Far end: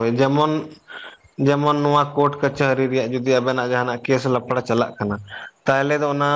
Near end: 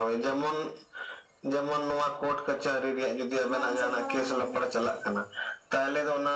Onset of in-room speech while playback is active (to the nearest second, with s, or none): 4 s